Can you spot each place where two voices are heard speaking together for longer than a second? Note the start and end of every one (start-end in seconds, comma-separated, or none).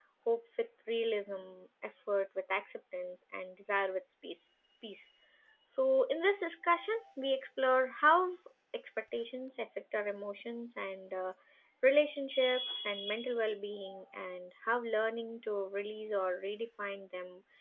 none